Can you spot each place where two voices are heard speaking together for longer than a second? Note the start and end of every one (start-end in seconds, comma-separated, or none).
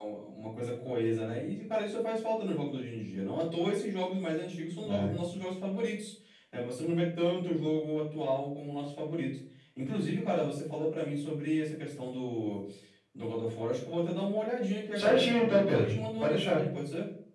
14.9-16.6